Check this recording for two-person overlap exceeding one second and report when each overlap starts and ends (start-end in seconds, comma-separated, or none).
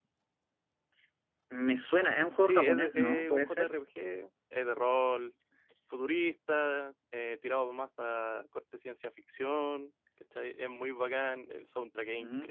2.4-3.7